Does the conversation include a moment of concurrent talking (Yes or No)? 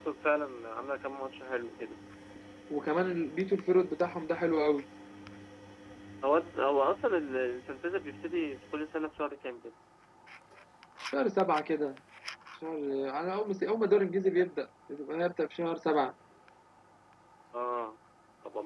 No